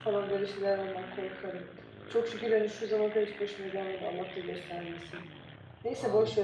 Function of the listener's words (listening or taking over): listening